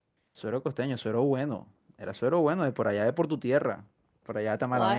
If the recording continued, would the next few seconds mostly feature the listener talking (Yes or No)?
Yes